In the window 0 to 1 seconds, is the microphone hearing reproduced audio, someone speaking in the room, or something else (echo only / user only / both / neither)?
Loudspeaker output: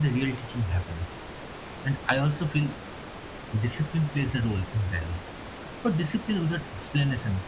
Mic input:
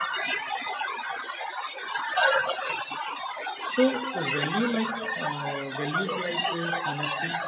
echo only